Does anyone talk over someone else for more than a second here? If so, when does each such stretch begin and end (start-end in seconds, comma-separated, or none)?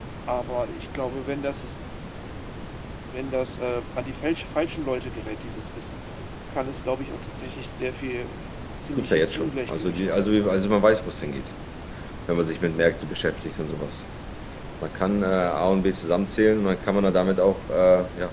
8.9-10.6